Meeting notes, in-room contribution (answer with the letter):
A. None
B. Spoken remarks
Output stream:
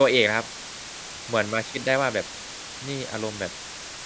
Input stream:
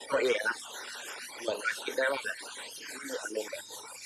A